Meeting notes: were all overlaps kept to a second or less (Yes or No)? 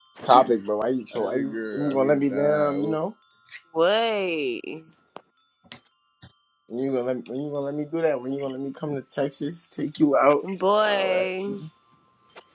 No